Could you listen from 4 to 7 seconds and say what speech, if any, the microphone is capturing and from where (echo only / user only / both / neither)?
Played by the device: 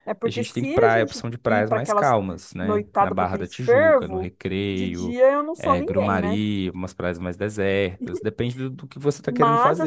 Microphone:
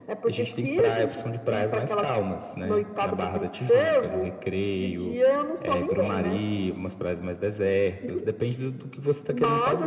echo only